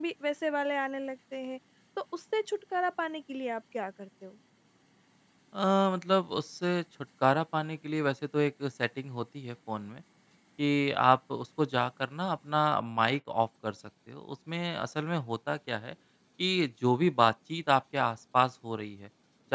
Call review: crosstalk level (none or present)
none